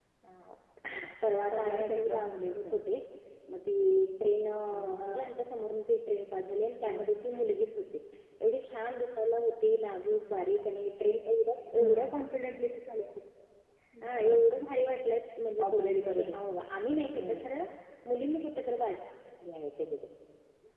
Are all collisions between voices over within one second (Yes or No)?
No